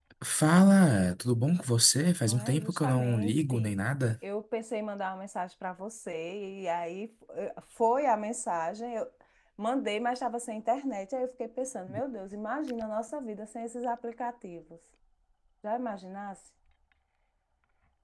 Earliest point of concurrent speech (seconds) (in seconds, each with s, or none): 2.3 s